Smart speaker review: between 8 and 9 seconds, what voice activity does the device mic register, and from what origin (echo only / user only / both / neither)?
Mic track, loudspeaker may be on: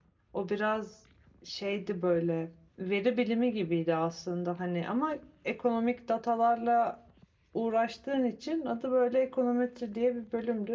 user only